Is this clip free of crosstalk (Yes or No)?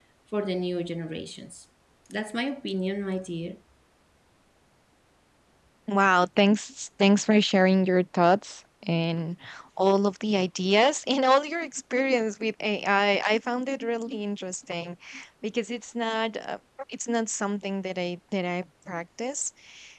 Yes